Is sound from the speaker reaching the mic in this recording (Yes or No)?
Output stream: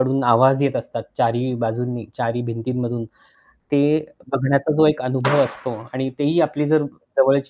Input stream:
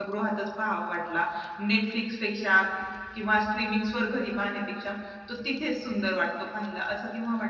No